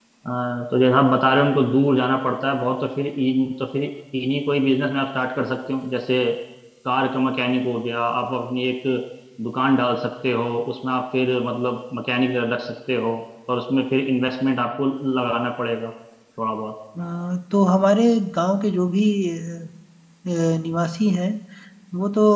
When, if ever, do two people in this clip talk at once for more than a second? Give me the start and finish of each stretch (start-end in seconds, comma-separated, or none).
none